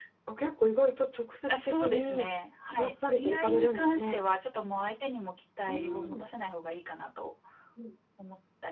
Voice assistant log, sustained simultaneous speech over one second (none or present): present